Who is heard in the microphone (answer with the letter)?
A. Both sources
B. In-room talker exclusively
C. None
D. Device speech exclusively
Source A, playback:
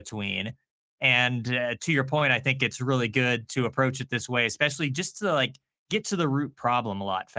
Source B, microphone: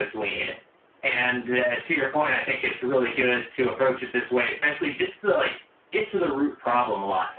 D